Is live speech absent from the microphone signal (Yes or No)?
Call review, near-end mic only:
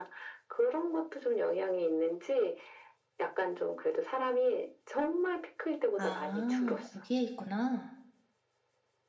No